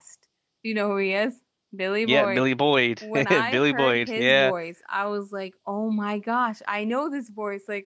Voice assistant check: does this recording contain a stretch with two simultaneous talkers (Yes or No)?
Yes